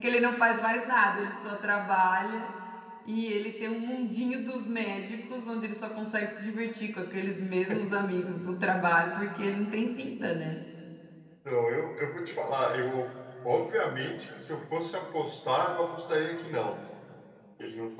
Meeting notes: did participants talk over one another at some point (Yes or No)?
No